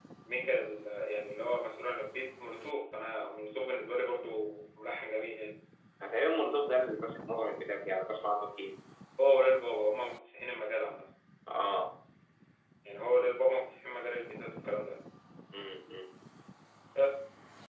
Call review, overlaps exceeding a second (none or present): none